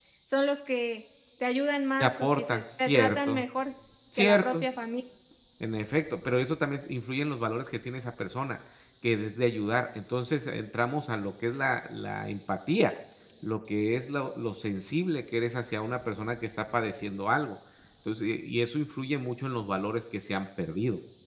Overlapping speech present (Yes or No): Yes